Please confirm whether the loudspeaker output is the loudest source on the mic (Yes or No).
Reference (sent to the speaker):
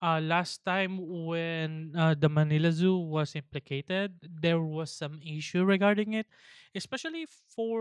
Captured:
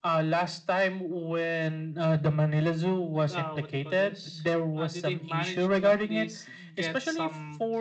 Yes